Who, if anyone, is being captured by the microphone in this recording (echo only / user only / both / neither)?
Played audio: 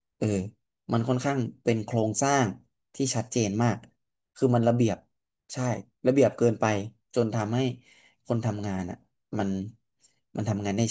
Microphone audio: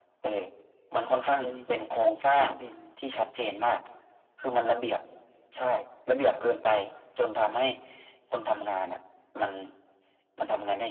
both